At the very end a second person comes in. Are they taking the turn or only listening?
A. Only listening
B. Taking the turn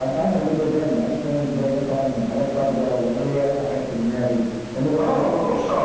B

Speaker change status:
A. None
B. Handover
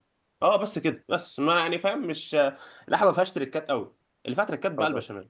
A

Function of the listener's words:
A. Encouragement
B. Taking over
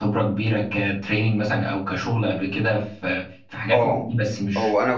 B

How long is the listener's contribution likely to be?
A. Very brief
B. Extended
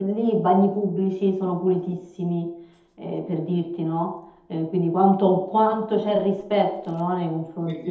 B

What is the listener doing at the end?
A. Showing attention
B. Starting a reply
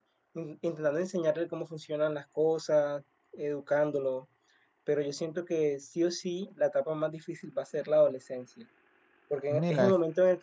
A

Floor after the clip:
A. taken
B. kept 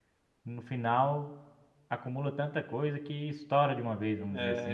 A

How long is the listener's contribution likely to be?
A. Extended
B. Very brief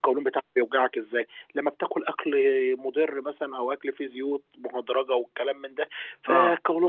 B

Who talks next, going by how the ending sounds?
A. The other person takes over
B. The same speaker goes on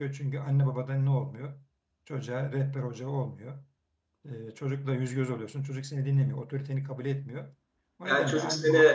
A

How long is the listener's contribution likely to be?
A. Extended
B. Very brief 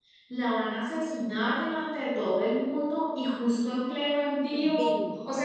B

